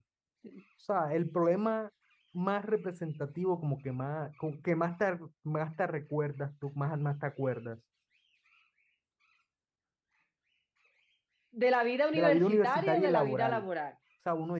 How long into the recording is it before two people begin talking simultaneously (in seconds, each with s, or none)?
12.1 s